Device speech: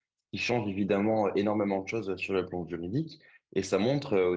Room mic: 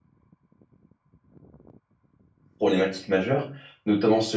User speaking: Yes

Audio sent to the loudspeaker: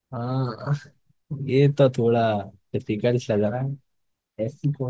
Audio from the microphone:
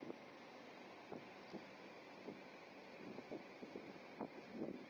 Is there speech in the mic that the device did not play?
No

